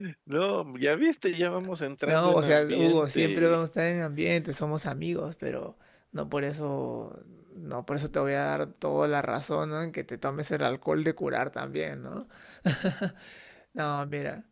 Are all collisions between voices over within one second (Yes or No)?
No